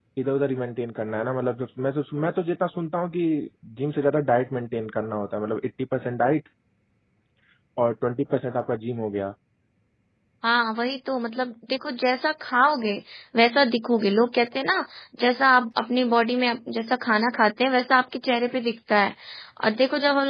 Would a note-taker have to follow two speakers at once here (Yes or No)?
No